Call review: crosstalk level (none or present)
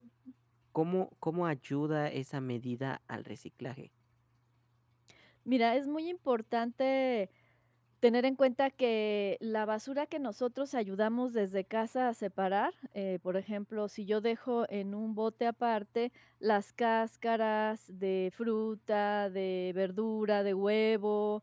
none